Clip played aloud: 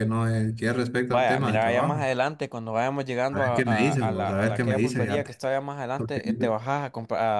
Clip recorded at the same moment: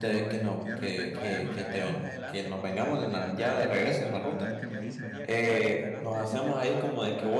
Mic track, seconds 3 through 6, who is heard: both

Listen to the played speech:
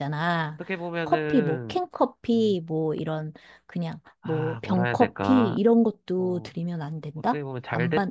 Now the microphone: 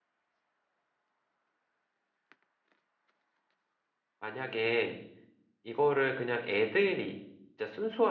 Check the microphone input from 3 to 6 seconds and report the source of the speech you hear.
user only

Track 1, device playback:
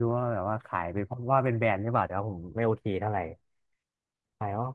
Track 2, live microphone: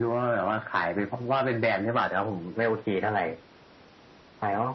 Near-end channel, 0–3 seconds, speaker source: echo only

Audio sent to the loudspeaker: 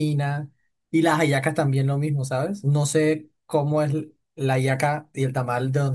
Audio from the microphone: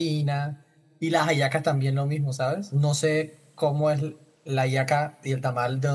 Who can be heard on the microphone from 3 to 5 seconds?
echo only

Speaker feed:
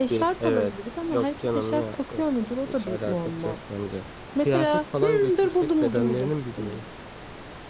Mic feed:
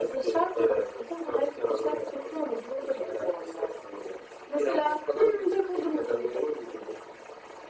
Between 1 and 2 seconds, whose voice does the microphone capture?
echo only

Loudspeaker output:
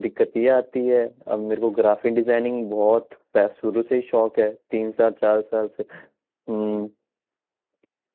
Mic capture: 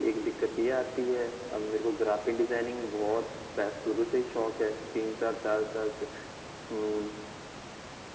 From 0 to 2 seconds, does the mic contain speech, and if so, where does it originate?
echo only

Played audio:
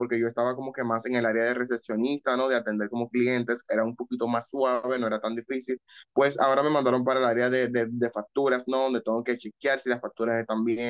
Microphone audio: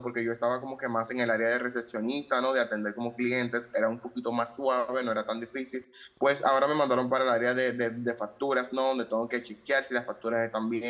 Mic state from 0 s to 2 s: echo only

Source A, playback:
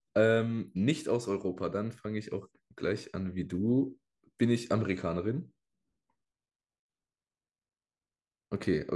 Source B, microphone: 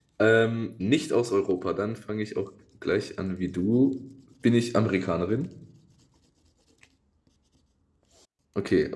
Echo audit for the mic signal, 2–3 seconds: echo only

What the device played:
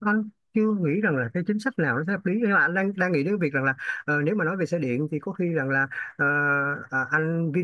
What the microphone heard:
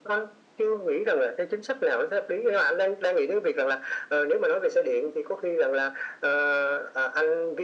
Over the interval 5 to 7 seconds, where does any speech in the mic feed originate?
echo only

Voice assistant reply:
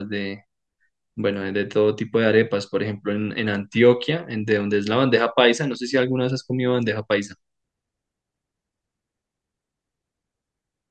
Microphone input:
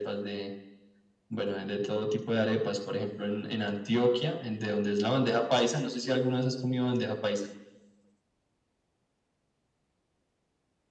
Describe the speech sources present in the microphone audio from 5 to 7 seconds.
echo only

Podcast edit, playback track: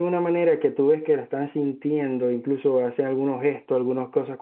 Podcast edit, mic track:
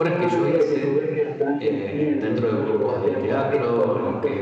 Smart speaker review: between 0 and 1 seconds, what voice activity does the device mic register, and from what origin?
both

